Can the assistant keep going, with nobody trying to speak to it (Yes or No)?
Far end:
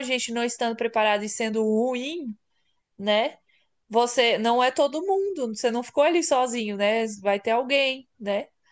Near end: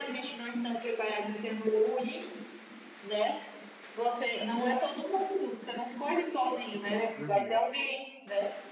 No